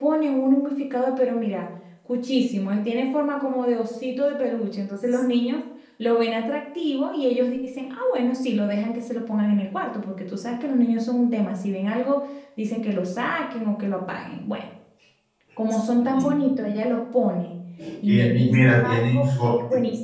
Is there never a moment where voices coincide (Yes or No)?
No